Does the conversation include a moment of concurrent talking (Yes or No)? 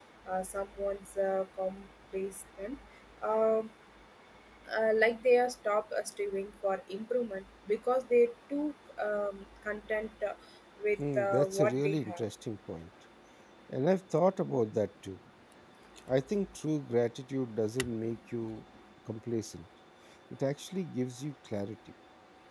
Yes